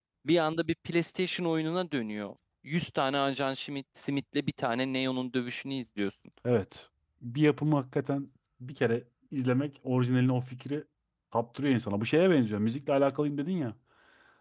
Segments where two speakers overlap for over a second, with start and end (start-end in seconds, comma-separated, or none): none